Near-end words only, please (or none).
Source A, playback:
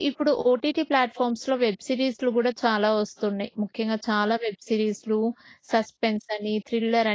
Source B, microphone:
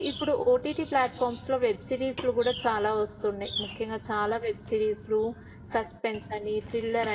none